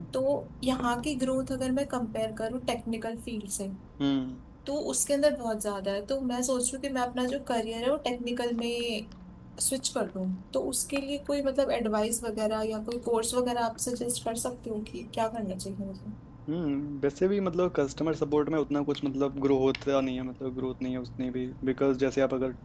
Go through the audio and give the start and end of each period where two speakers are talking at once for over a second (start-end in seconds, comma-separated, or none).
none